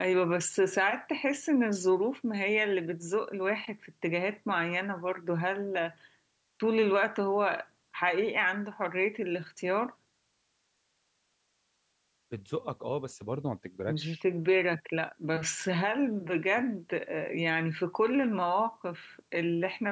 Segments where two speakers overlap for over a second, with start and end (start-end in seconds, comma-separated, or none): none